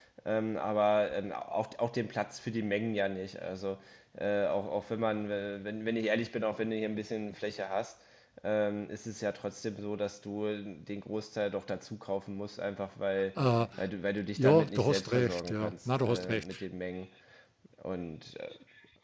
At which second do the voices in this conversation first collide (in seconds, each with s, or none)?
14.4 s